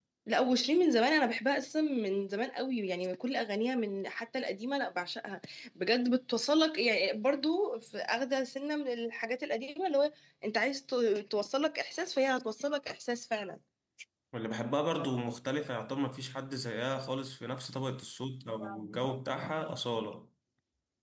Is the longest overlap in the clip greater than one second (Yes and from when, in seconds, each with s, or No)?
No